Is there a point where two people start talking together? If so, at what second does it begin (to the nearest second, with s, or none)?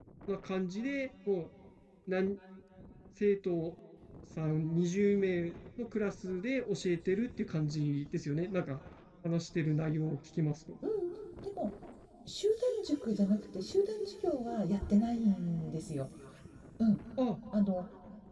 none